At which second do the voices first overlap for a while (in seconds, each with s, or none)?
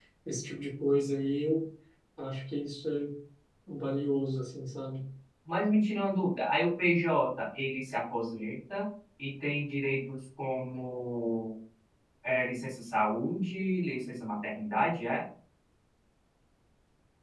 none